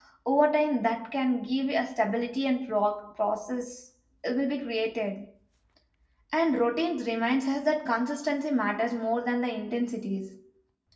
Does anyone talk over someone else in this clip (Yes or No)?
No